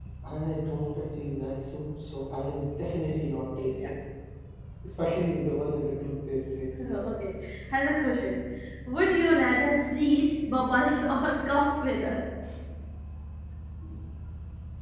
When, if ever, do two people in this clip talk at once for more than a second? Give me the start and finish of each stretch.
none

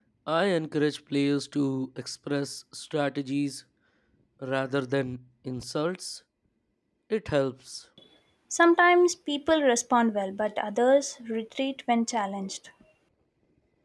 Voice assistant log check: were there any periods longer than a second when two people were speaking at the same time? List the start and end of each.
none

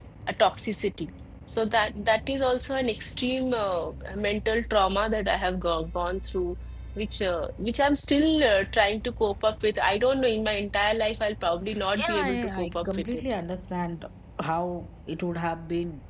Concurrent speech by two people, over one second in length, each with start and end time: 12.0-13.2

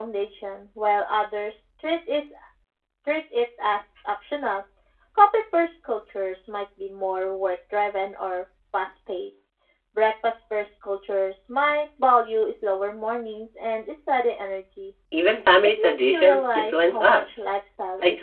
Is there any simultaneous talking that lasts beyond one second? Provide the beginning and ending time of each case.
15.8-17.4

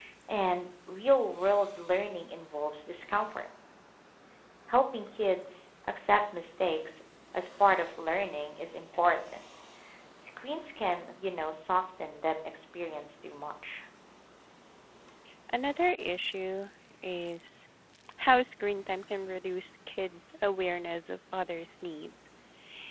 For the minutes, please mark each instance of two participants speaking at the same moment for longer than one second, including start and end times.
none

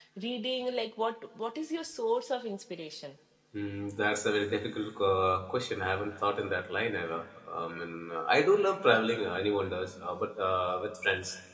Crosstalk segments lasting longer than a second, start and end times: none

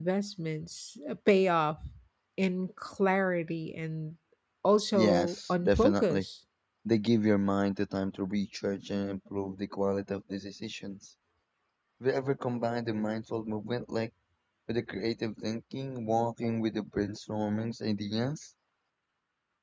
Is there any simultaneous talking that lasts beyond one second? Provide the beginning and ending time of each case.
4.9-6.3

